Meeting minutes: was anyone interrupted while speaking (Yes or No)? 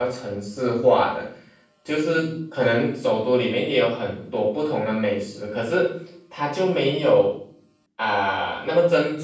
No